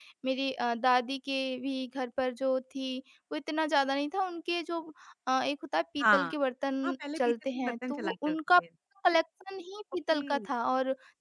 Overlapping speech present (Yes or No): Yes